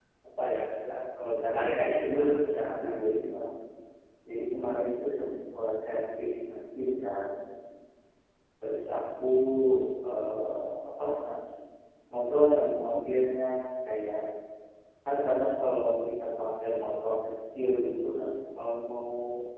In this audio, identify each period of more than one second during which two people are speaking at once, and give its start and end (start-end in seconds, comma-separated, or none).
1.5-2.9